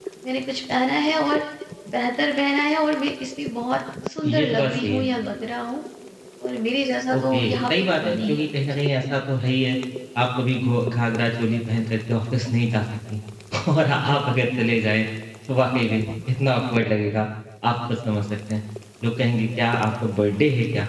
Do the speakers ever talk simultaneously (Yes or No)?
Yes